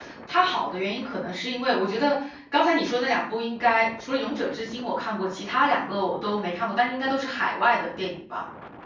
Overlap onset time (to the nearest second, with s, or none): none